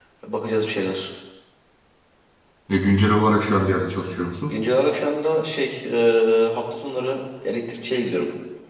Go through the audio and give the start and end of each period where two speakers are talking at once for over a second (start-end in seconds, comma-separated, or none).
none